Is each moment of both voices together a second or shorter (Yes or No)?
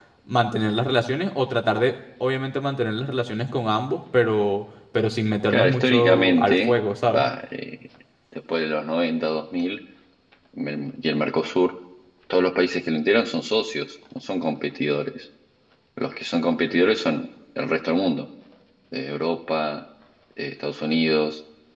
No